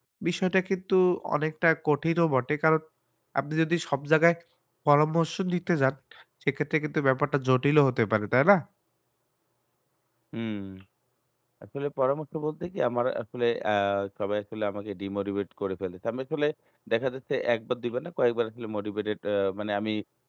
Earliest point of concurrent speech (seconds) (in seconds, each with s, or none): none